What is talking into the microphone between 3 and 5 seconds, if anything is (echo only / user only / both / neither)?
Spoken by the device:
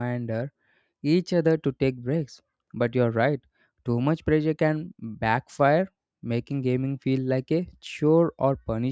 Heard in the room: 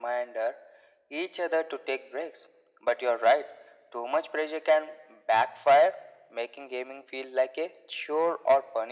echo only